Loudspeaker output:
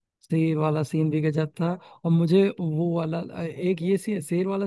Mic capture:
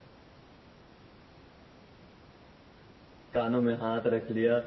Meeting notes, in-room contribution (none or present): present